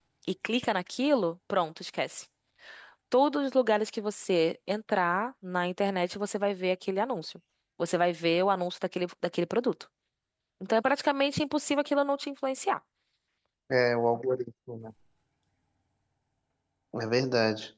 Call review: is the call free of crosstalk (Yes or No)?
Yes